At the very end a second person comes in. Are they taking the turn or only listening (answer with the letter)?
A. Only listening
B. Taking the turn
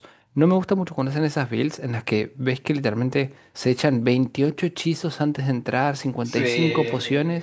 A